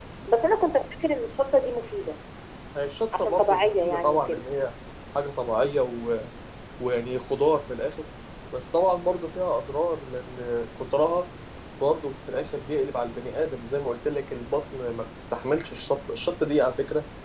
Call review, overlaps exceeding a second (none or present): present